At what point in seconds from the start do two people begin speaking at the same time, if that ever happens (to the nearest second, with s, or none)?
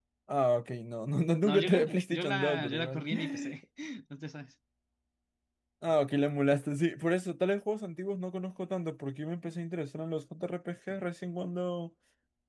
1 s